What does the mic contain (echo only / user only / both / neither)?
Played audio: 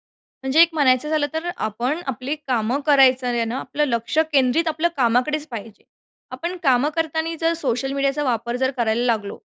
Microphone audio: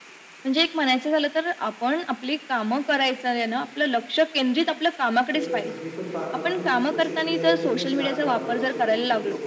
both